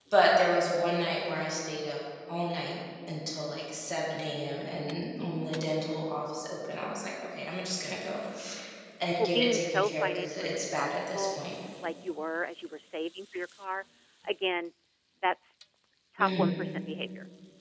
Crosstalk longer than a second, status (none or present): present